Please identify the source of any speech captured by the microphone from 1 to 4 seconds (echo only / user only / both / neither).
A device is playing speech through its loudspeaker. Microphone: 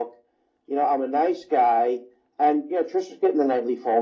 echo only